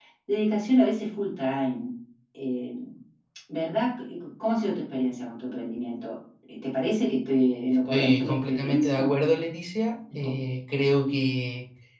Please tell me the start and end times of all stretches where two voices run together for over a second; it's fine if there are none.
7.9-9.1

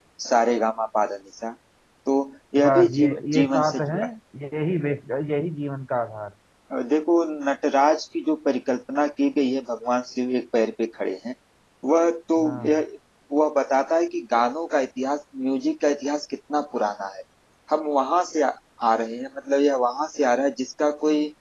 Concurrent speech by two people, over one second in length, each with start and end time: 2.6-4.0

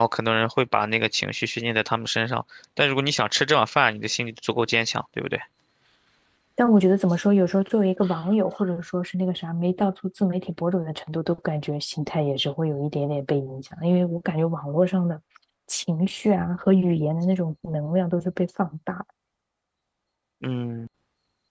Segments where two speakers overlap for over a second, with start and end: none

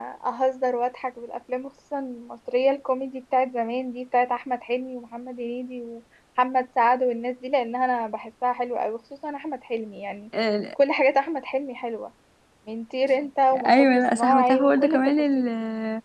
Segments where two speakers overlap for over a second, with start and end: 13.7-15.5

